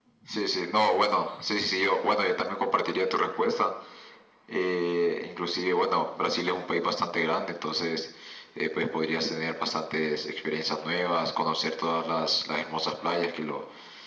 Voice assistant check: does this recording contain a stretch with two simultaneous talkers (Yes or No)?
No